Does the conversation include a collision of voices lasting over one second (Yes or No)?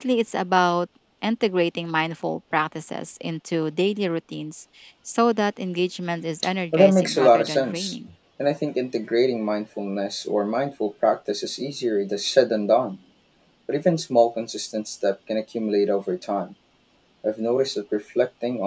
Yes